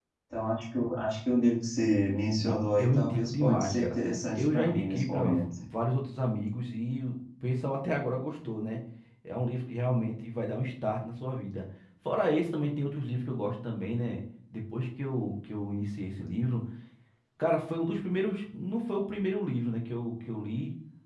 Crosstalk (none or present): present